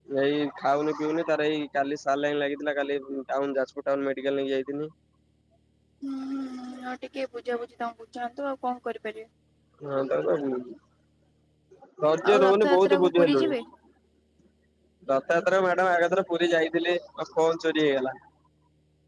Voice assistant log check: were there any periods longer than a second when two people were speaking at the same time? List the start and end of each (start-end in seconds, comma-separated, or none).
12.3-13.5